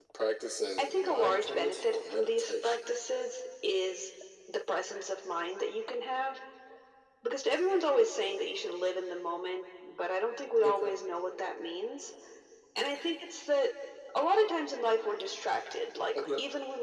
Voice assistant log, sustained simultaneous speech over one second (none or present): present